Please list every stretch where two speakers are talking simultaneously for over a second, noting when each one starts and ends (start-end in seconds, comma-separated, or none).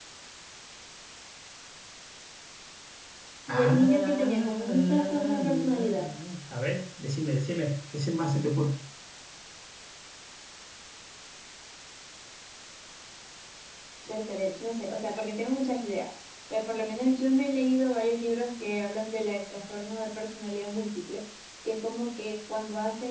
3.5-5.9